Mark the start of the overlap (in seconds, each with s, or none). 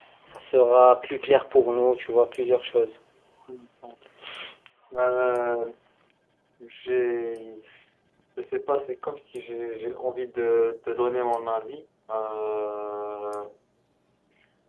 none